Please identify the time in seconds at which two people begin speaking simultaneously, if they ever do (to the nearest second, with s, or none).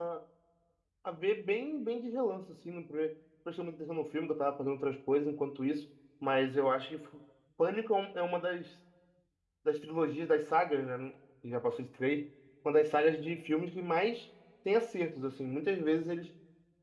none